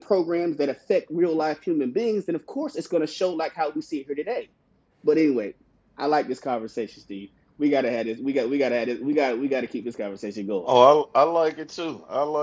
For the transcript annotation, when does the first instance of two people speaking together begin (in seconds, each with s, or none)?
none